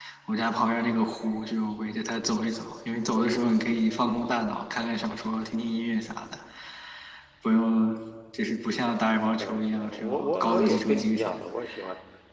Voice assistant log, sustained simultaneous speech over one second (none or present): present